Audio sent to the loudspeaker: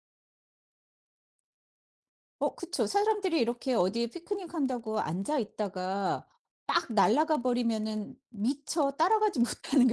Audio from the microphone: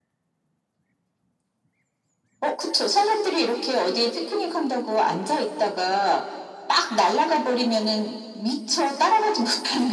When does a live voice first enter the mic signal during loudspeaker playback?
none

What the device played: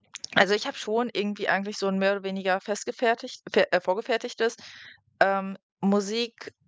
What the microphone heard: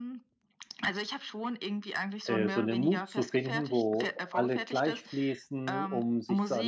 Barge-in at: 2.2 s

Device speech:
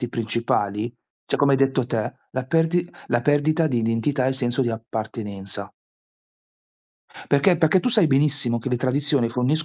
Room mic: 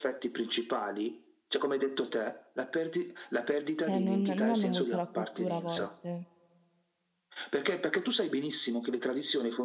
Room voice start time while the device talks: 3.8 s

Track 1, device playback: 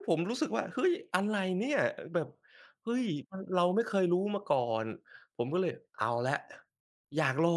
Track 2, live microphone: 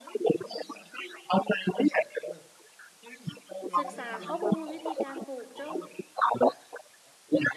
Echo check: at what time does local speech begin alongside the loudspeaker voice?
3.8 s

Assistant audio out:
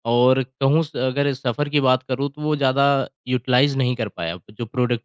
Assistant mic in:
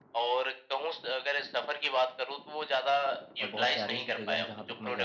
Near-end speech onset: 3.4 s

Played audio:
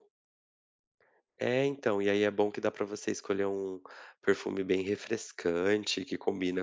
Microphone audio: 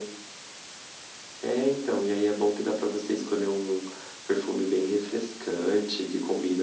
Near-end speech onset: none

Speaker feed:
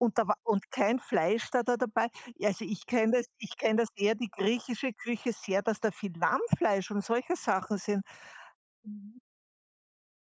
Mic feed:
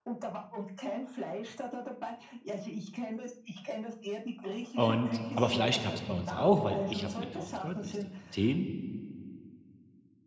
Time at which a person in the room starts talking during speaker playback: 4.8 s

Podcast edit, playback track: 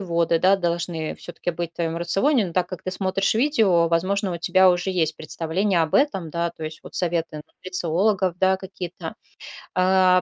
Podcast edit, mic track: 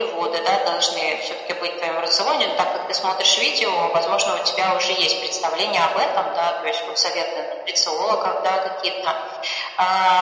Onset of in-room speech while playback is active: none

